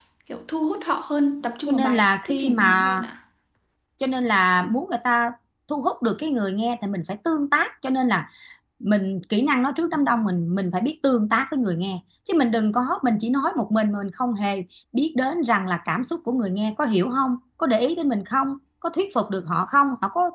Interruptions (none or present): present